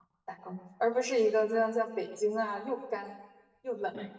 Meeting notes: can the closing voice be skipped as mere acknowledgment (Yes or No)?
No